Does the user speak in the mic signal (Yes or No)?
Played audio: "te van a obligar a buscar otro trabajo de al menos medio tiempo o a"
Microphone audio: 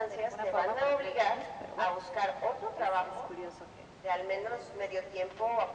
Yes